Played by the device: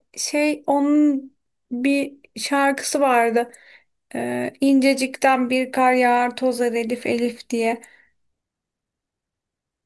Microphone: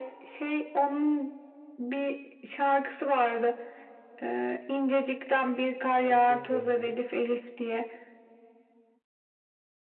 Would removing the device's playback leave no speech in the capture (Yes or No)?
No